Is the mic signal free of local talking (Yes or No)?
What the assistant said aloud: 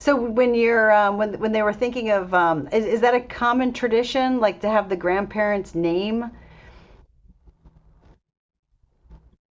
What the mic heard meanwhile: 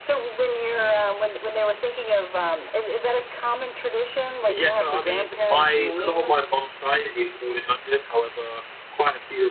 No